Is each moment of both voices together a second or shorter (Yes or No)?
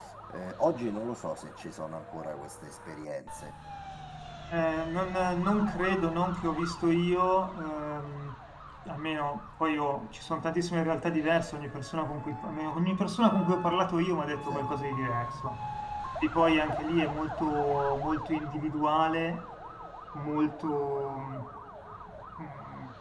Yes